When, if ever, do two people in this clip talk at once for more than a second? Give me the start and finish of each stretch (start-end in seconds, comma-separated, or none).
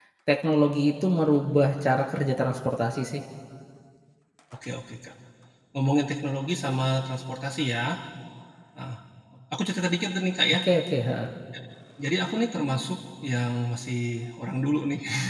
none